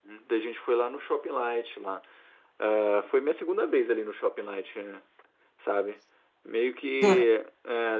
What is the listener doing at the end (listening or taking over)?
listening